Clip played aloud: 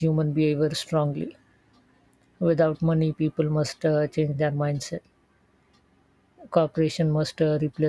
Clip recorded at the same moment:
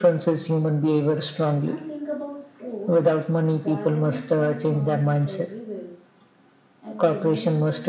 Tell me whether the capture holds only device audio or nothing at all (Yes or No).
No